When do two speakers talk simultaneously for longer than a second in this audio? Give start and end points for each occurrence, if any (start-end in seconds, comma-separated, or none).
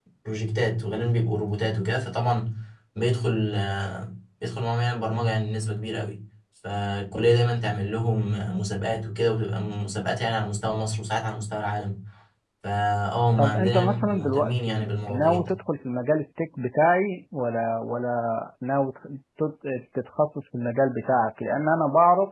13.4-15.5